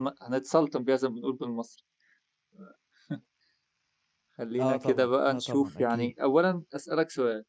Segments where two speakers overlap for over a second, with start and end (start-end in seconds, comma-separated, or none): 4.6-6.1